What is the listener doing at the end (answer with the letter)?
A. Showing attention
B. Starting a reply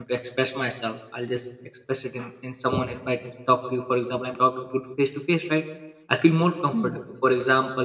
A